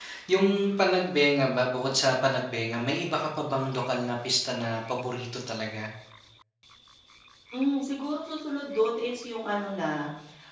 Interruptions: none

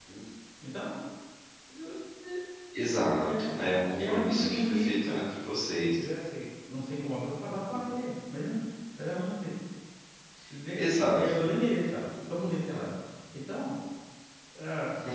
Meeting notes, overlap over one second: present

